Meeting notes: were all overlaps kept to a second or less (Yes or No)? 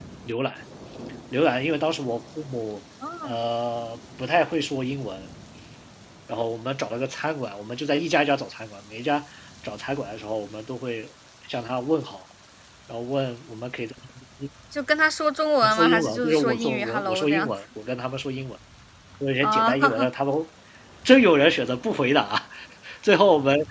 No